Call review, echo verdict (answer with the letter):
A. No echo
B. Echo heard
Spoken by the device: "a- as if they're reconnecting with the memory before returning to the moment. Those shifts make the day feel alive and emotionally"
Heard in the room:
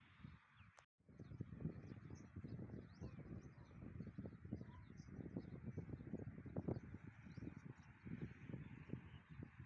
A